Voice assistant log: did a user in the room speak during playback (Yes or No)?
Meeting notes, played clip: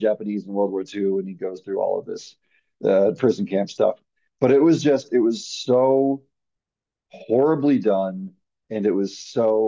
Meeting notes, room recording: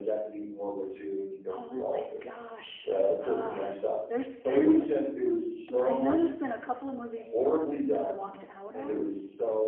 Yes